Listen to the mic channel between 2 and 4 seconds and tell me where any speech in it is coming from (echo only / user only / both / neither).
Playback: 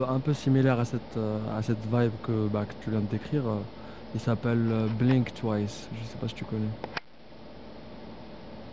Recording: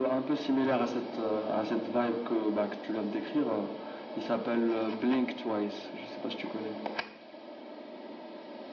echo only